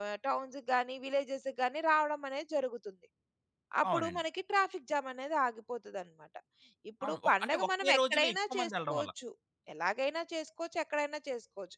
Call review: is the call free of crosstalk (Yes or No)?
No